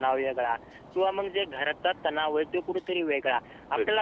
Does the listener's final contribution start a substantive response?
No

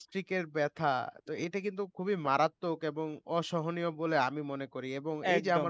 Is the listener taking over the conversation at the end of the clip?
No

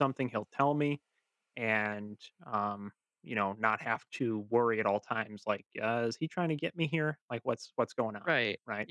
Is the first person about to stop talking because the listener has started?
Yes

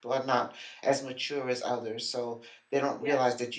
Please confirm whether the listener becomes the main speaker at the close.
No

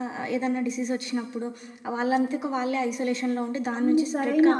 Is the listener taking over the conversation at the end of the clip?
Yes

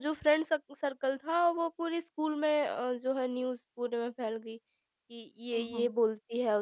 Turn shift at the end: No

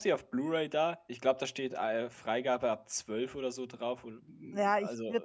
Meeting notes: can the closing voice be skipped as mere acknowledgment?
No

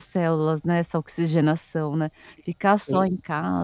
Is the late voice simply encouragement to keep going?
Yes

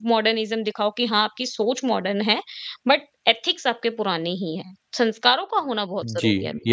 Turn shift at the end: Yes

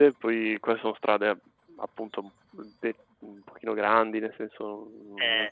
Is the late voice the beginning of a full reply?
No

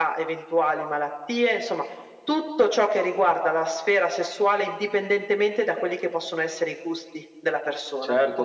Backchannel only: No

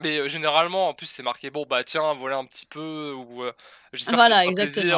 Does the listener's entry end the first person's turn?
No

